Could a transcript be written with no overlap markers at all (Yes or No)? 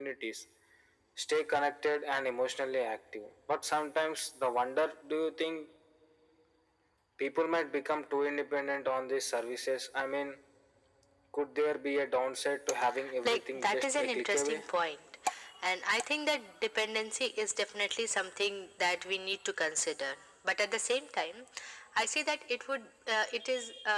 No